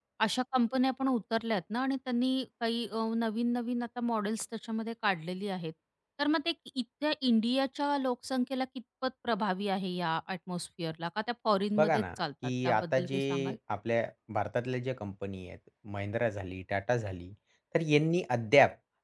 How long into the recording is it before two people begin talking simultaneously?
11.8 s

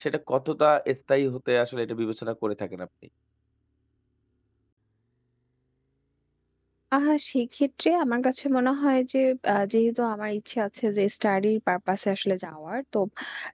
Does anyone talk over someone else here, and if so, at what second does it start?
none

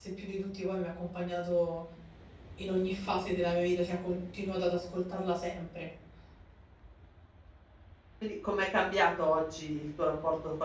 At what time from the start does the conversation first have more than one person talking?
none

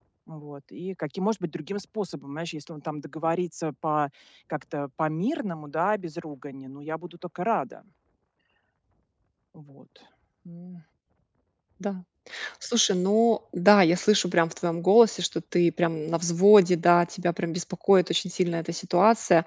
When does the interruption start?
none

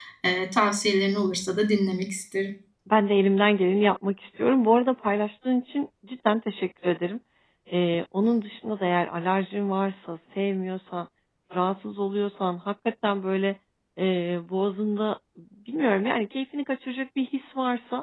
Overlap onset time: none

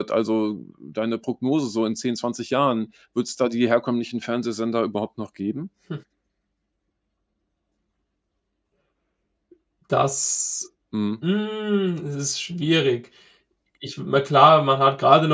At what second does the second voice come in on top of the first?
none

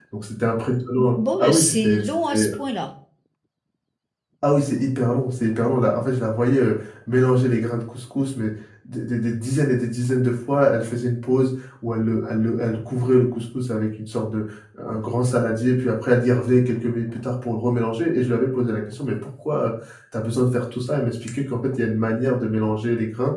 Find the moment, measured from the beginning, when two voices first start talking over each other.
1.0 s

